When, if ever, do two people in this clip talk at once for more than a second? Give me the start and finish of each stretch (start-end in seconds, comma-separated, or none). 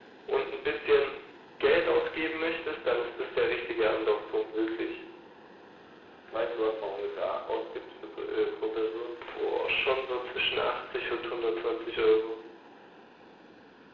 none